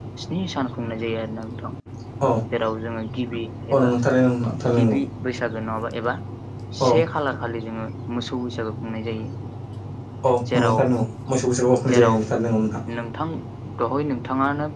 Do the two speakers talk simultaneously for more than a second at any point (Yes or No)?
No